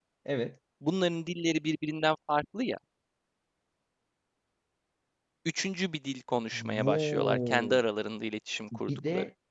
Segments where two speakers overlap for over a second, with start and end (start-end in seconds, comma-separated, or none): 6.5-7.8